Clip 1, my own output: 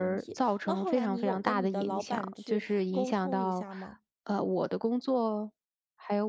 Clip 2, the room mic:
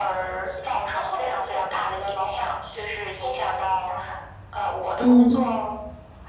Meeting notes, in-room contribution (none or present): present